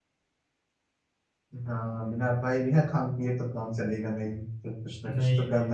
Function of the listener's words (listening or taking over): taking over